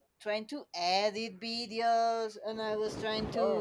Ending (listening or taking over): listening